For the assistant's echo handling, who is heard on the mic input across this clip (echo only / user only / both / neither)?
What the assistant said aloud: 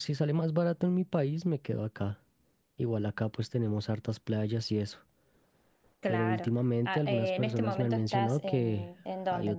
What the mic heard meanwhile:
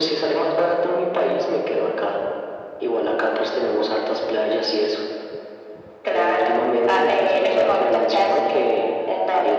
echo only